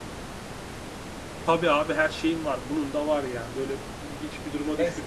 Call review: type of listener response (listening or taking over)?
taking over